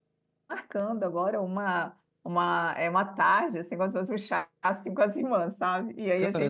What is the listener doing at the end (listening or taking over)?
taking over